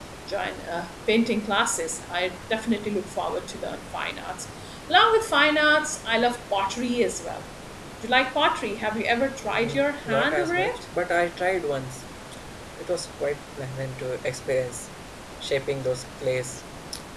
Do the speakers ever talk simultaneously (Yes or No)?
Yes